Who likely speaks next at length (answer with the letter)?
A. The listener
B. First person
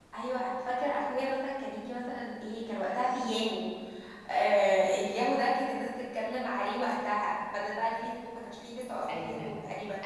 A